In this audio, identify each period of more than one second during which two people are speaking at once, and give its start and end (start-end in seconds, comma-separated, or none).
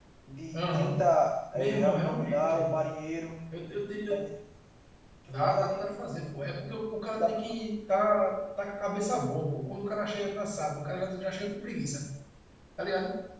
1.5-2.8